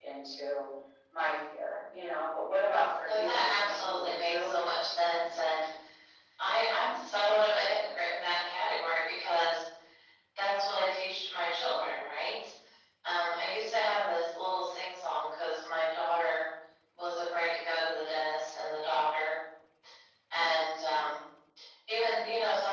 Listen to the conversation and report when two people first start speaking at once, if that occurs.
3.1 s

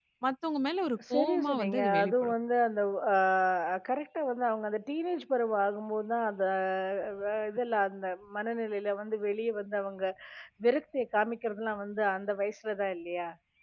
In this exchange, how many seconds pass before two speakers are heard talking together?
1.1 s

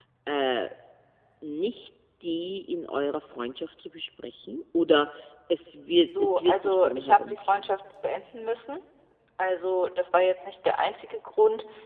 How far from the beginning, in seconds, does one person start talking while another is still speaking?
6.2 s

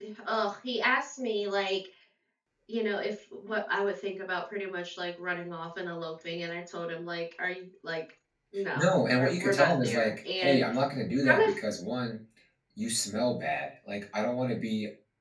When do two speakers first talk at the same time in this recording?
8.8 s

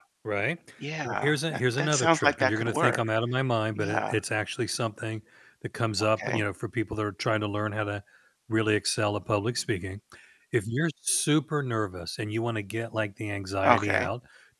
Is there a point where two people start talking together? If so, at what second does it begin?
1.0 s

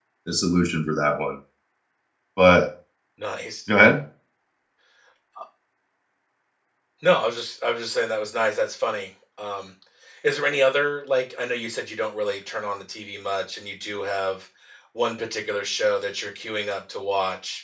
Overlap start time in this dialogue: none

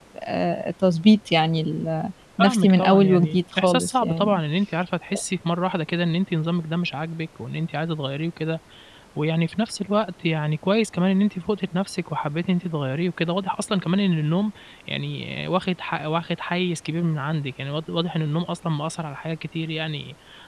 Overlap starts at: 2.4 s

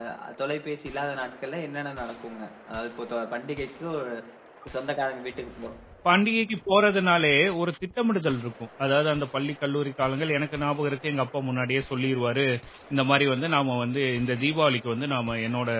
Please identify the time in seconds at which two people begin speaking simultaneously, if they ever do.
none

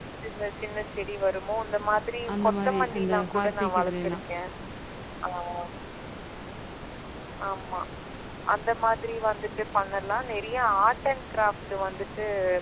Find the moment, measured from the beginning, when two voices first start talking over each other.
2.3 s

